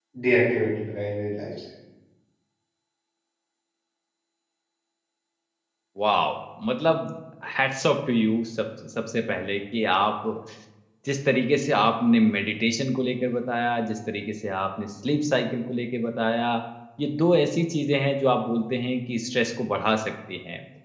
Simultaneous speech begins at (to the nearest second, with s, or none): none